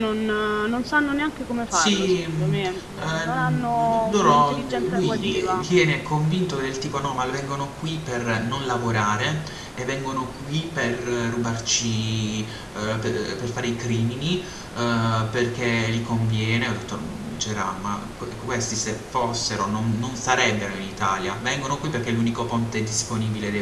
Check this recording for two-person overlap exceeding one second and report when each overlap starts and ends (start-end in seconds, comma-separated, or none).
1.7-5.6